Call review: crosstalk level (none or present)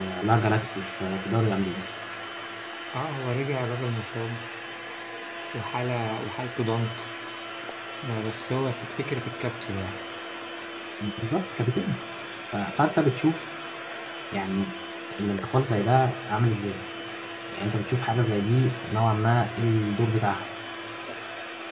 none